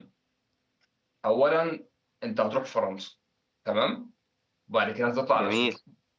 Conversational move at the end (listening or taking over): listening